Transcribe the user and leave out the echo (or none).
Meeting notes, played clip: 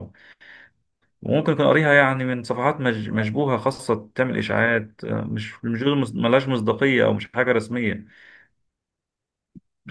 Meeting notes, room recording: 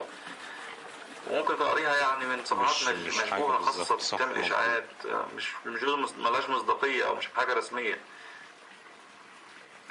مش مش حاجة بالظبط صح مظبوط